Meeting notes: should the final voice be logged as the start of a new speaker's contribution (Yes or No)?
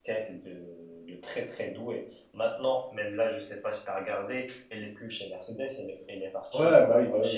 Yes